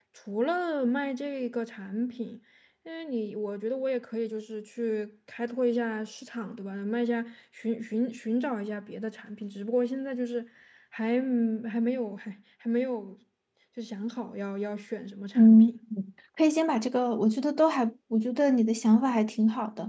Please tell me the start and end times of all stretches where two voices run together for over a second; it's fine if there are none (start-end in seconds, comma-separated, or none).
none